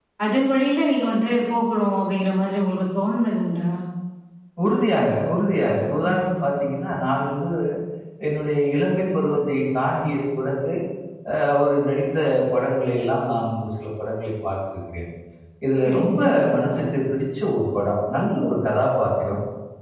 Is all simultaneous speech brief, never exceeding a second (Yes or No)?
Yes